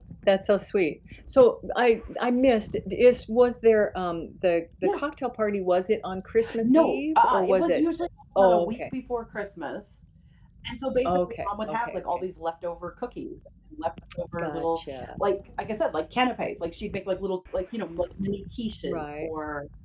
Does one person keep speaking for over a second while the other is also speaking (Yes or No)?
Yes